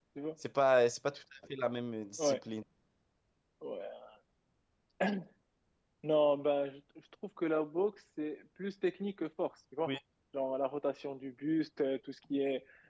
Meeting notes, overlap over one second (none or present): none